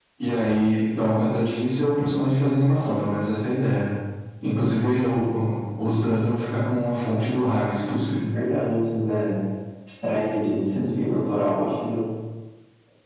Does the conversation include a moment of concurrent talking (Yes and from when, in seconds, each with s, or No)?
No